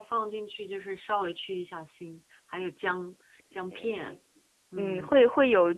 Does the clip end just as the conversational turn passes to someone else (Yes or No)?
Yes